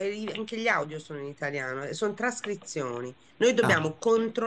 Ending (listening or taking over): listening